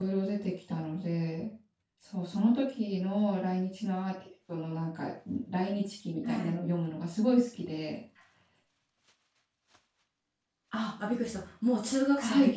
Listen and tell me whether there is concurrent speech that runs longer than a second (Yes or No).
No